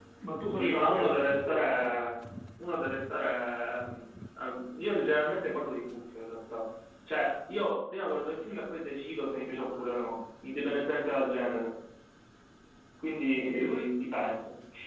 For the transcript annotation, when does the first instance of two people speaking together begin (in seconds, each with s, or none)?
0.5 s